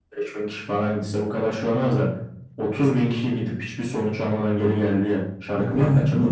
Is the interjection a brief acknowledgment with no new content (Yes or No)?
No